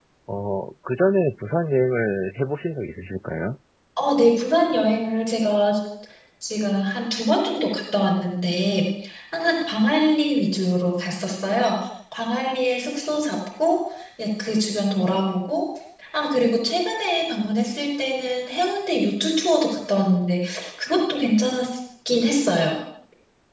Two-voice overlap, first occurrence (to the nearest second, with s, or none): none